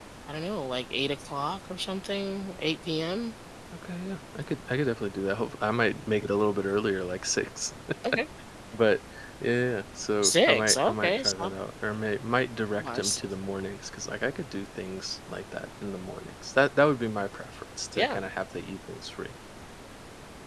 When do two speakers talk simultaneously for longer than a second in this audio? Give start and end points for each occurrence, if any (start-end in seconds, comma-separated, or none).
10.2-11.5